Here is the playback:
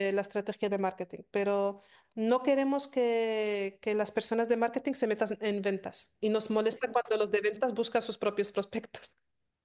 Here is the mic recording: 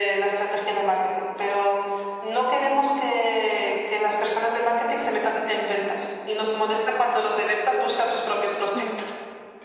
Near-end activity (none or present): present